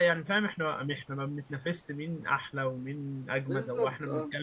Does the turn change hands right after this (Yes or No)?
No